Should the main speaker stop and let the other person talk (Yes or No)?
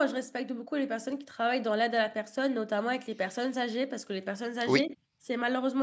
No